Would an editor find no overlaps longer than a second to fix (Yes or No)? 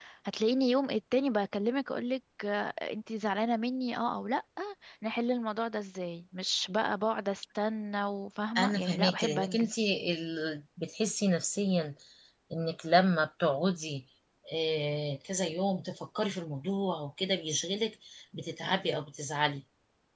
No